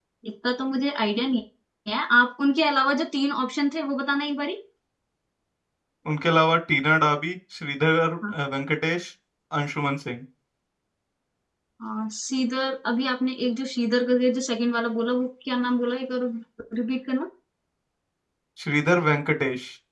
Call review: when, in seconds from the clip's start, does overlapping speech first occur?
none

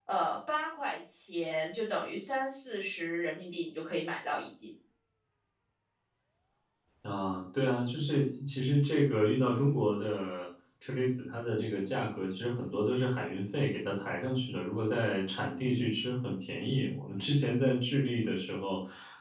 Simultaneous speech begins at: none

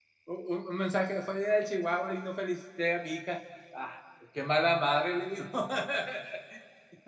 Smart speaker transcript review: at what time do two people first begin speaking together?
none

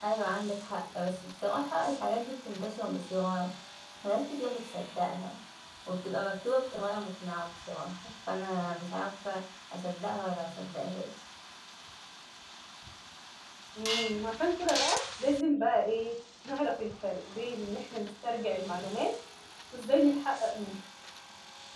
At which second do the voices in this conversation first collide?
none

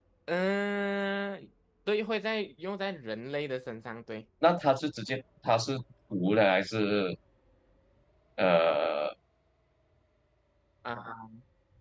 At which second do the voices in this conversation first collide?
none

